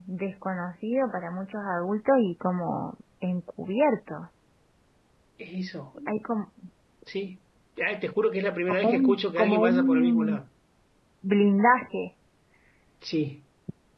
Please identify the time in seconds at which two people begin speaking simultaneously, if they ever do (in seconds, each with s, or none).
8.7 s